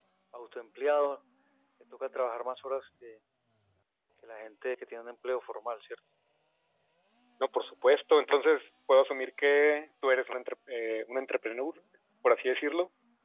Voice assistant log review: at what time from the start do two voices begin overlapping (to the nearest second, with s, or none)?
none